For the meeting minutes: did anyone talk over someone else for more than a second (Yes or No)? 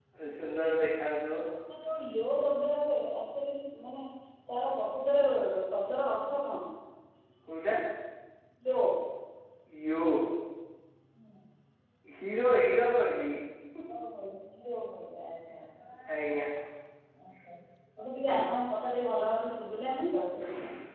No